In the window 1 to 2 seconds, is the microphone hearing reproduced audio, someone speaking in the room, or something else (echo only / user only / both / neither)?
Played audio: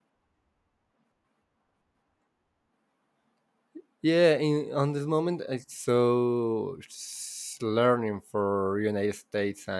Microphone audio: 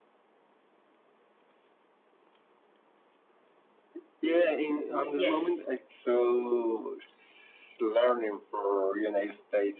neither